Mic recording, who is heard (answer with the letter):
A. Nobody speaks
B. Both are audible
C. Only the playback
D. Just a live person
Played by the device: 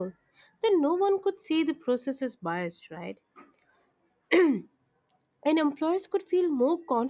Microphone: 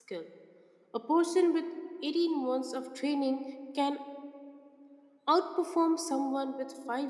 D